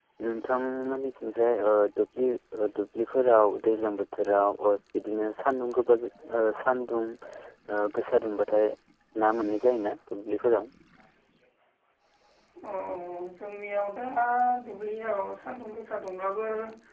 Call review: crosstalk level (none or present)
none